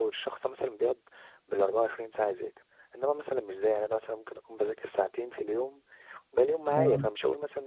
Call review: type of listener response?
listening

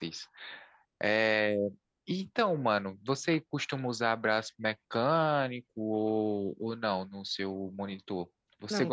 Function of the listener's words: taking over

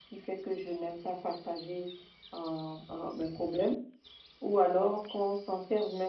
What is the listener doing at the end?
listening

